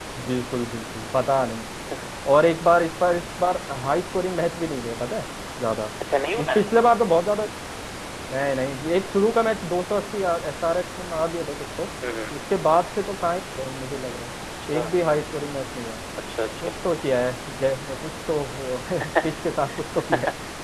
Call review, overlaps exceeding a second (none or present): none